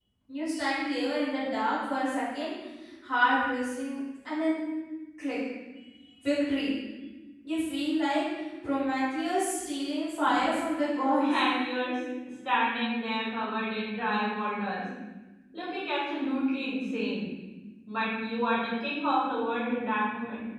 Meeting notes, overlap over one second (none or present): none